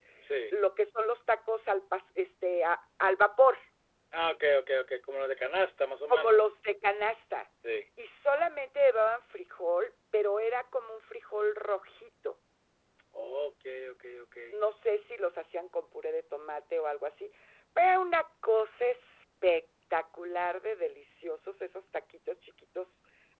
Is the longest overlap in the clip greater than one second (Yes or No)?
No